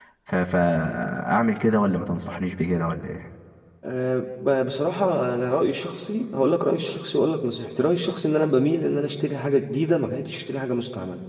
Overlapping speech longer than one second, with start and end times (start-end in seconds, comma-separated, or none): none